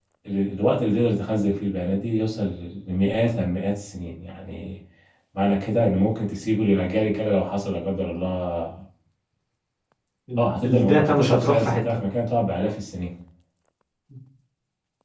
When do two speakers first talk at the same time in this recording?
10.4 s

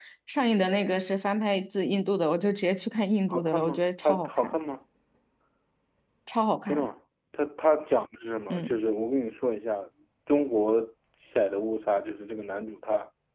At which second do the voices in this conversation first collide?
3.3 s

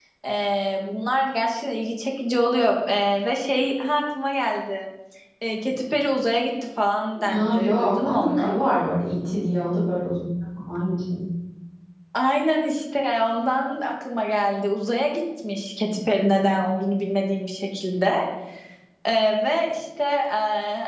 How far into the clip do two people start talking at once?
7.2 s

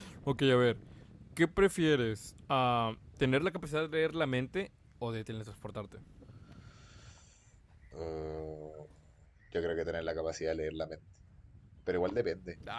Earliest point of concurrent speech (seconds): none

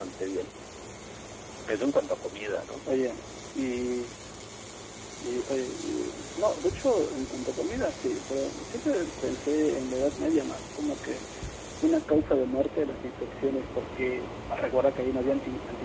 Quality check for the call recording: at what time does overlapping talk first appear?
none

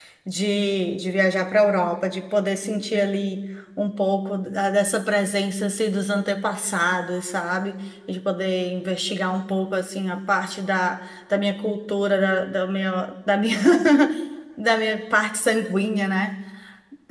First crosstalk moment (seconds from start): none

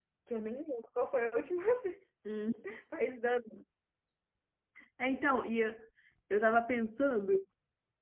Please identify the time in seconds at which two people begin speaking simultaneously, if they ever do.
none

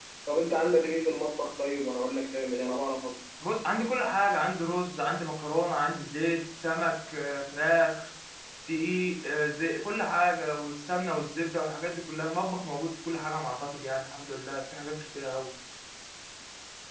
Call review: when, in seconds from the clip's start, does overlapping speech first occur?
none

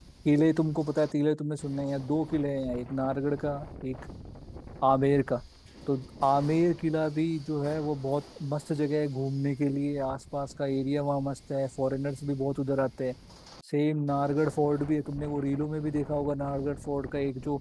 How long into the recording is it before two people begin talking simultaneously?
none

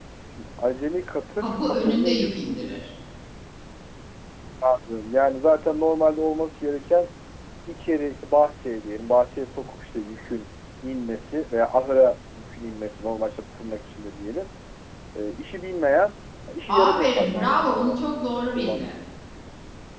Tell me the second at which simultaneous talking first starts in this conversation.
1.4 s

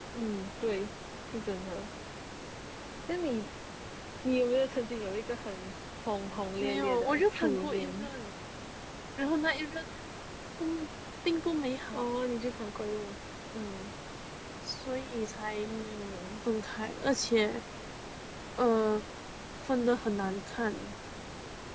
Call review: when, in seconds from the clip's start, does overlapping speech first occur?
6.6 s

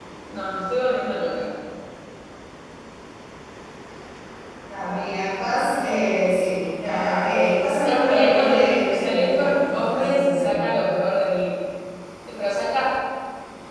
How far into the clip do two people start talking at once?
7.8 s

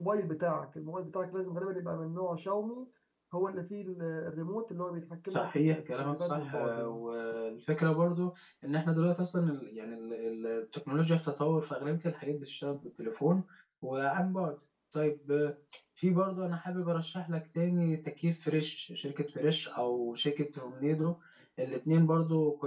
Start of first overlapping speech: 5.3 s

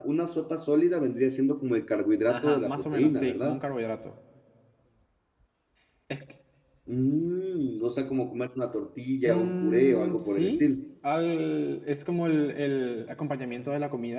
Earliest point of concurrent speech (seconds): 2.3 s

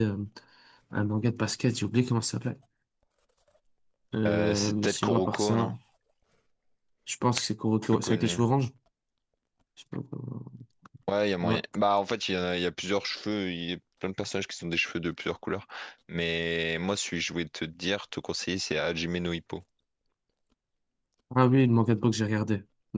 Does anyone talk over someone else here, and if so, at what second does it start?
4.3 s

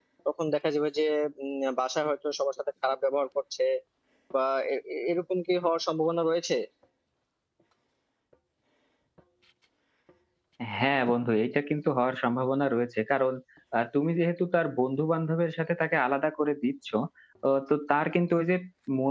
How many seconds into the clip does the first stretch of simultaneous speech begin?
none

